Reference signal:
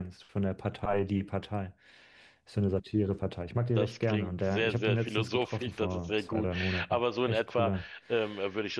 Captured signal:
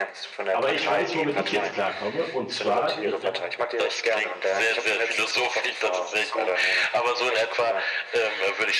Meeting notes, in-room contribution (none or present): present